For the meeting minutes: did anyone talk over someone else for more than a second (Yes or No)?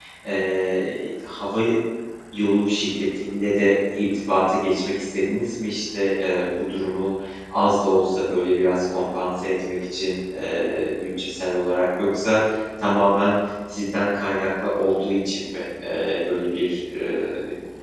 No